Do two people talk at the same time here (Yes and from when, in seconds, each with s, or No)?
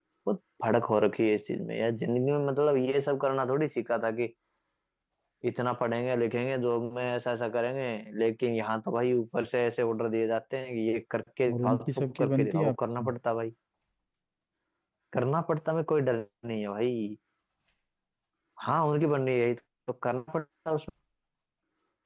Yes, from 11.5 s